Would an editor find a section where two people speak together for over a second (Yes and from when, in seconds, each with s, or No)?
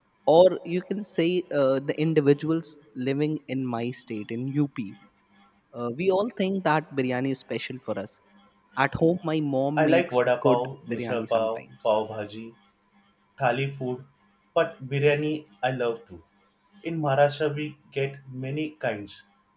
Yes, from 9.8 s